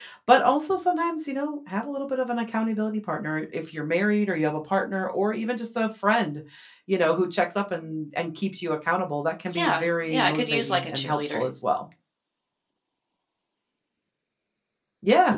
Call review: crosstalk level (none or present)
present